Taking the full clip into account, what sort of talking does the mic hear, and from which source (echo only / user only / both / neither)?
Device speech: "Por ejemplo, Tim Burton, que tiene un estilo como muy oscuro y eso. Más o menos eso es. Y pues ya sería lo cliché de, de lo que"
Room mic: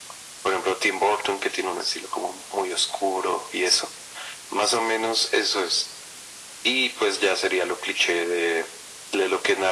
echo only